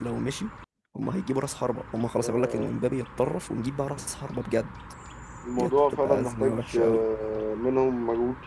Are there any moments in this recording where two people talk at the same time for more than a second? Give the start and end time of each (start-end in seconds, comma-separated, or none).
5.6-7.0